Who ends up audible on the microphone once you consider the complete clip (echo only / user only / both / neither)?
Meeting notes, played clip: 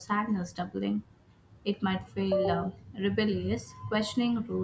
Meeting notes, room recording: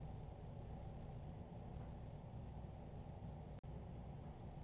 neither